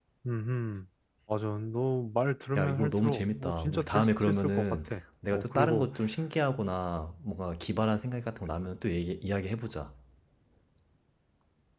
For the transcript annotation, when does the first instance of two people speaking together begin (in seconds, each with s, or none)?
2.5 s